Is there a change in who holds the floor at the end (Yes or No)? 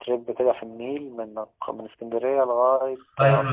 Yes